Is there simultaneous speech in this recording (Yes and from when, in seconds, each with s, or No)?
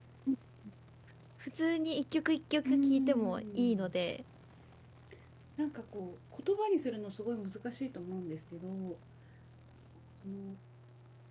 Yes, from 2.6 s